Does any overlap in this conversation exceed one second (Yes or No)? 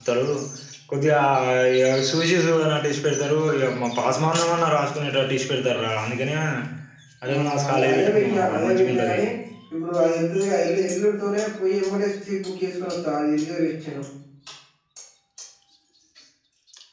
Yes